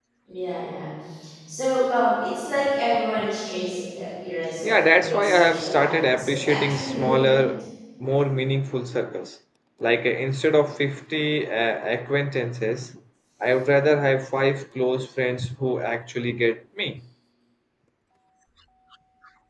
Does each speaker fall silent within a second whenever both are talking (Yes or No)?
No